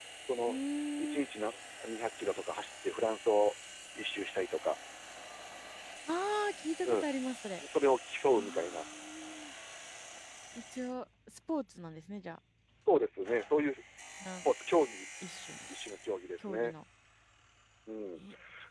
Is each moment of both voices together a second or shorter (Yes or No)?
Yes